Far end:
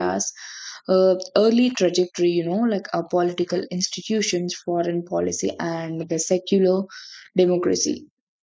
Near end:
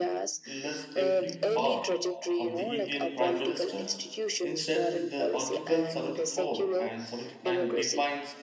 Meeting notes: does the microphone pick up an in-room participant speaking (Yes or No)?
Yes